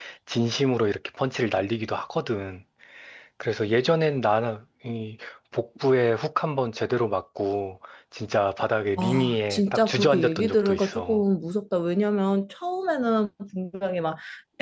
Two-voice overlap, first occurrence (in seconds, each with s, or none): 9.0 s